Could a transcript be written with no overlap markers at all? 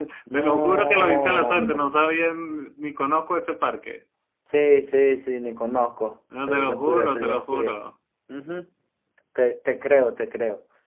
No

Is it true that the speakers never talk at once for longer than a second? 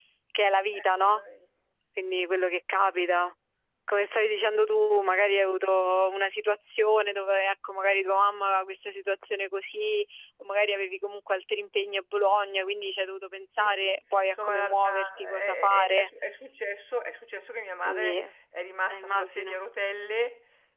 No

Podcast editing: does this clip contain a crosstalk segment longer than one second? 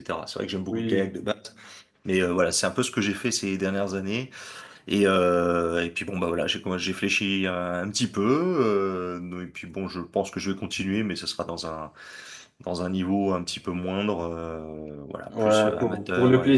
Yes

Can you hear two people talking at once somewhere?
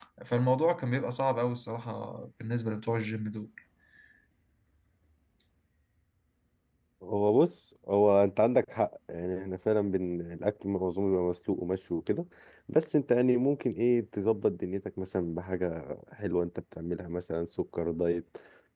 No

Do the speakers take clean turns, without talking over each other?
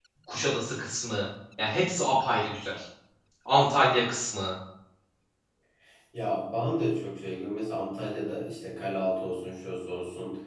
Yes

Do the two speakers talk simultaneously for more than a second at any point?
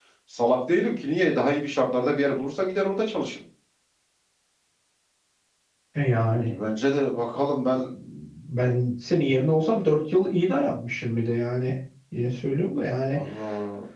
No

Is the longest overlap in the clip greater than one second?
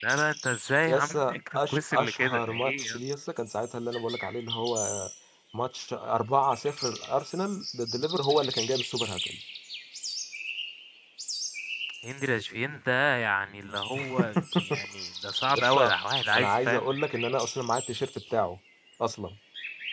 Yes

